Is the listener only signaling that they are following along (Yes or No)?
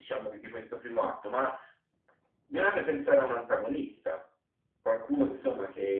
No